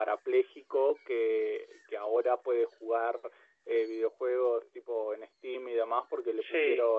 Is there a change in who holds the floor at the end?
No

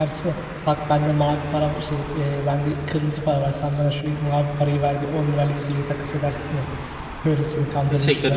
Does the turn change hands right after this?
Yes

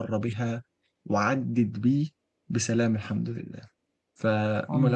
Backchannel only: Yes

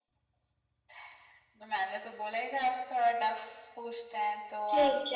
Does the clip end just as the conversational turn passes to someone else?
Yes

